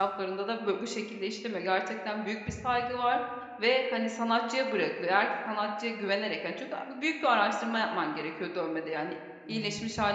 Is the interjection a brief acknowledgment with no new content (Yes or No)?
Yes